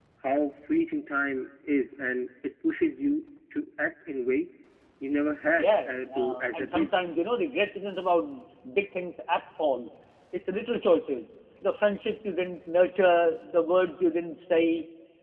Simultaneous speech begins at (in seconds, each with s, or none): 5.5 s